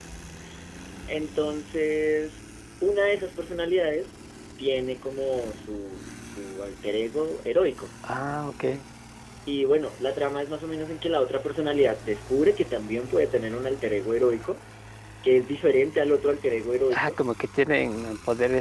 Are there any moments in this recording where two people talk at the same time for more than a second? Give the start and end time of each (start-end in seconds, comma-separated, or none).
none